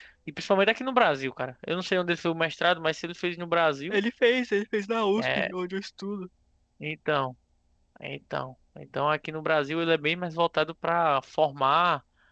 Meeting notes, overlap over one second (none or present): none